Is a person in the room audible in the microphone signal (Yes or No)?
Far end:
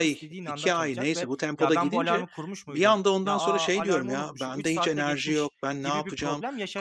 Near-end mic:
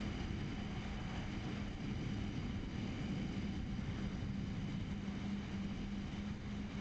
No